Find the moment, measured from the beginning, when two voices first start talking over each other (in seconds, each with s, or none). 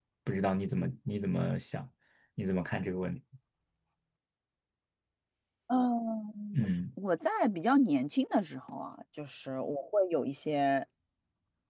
none